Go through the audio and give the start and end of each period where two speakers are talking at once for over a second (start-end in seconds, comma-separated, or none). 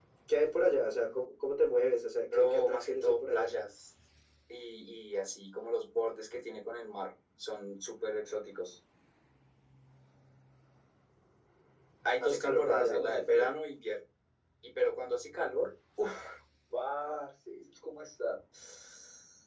2.3-3.6, 12.2-13.5